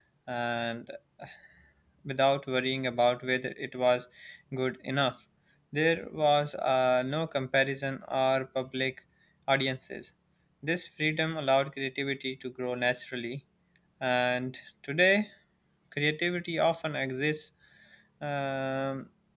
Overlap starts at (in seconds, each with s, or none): none